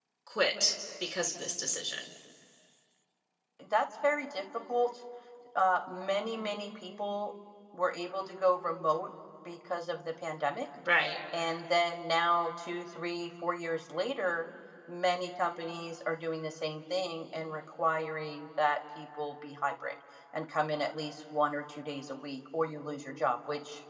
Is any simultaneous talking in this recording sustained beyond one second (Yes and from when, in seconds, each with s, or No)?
No